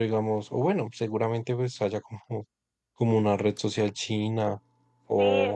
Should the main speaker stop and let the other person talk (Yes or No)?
Yes